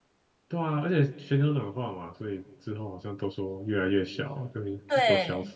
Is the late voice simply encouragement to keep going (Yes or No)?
No